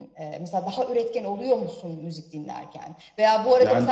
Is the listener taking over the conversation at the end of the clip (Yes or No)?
No